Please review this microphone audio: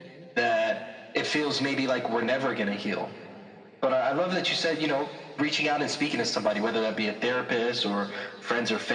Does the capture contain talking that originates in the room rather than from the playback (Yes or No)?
No